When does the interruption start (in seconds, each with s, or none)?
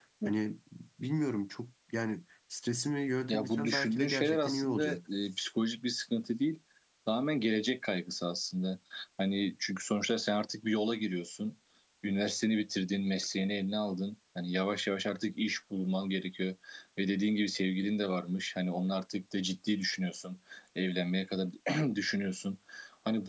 3.3 s